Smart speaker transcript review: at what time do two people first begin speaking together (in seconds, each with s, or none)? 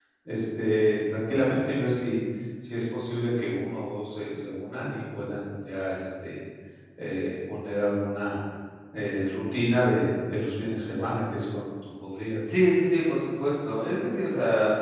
none